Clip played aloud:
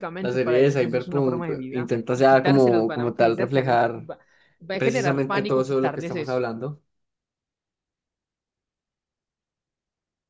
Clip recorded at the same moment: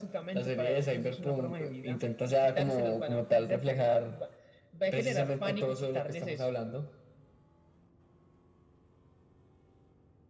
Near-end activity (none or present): none